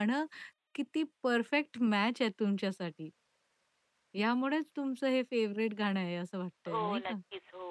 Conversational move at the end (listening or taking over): taking over